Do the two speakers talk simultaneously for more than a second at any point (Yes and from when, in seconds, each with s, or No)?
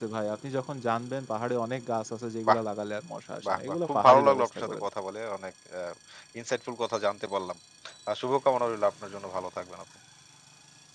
Yes, from 3.5 s